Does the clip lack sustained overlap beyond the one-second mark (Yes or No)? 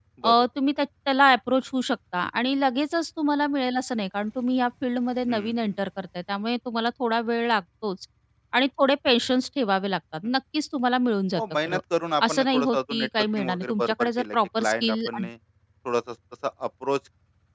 No